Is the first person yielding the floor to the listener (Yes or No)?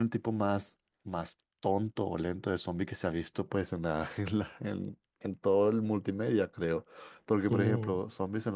No